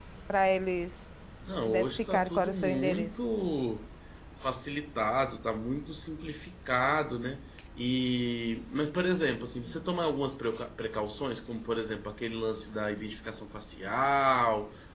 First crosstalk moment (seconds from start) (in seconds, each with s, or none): 1.6 s